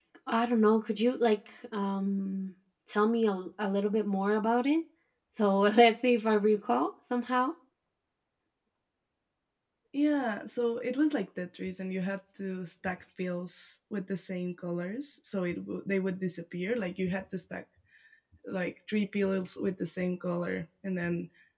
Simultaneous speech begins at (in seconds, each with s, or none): none